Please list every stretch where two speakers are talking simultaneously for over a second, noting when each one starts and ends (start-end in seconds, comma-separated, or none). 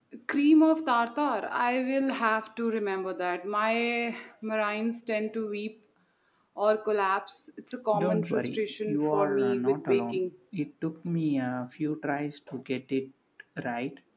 7.9-10.3